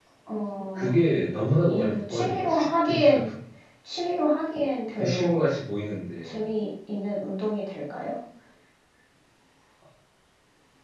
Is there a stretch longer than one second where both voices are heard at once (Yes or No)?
Yes